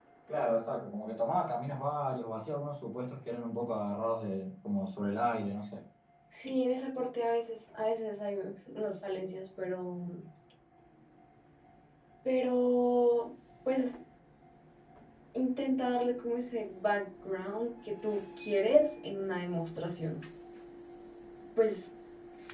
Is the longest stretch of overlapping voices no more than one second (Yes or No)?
Yes